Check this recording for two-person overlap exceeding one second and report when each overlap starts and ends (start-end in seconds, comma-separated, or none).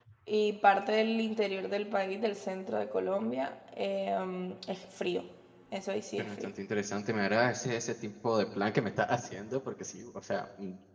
none